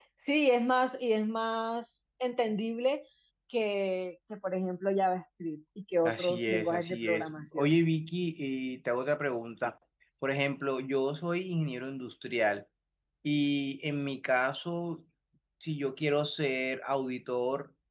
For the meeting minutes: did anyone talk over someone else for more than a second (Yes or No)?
Yes